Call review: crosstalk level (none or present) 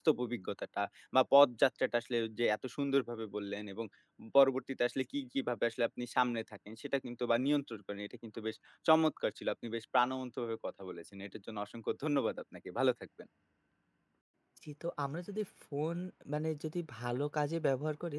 none